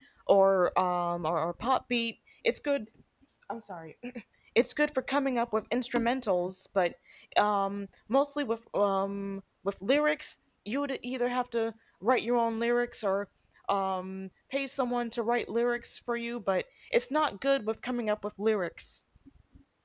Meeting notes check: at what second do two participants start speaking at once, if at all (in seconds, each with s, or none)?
none